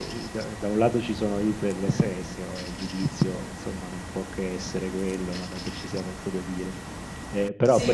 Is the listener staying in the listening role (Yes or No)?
No